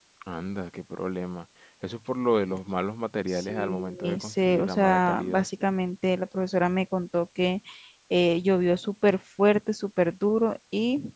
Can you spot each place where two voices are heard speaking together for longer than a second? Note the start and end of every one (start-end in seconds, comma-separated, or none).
3.3-5.4